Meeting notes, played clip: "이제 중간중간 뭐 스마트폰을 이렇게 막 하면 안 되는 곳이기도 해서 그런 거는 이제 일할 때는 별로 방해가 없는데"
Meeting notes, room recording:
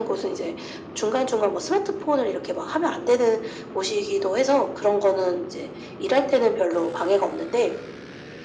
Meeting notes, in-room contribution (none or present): none